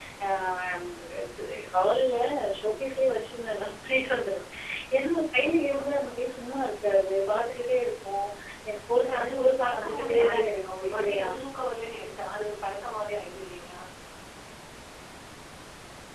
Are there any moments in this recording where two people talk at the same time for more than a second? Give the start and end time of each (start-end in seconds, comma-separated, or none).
9.0-11.3